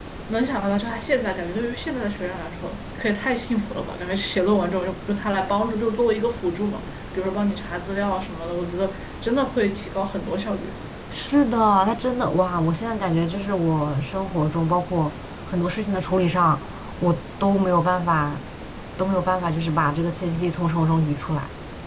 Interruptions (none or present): none